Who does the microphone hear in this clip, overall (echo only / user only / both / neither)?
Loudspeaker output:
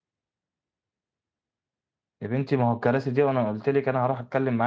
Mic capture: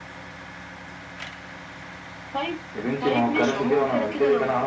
both